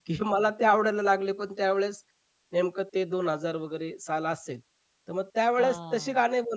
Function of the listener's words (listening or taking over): listening